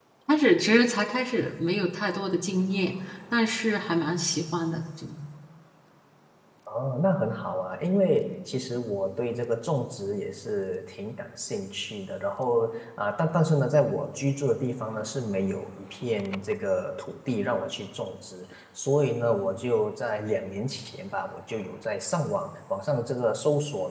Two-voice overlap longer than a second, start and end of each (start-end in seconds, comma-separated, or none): none